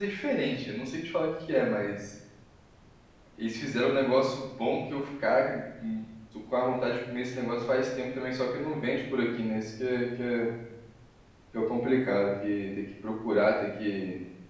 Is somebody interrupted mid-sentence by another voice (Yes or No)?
No